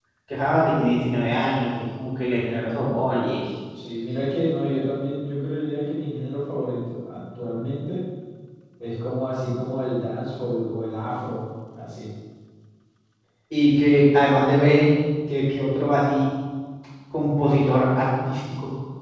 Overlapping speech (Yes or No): No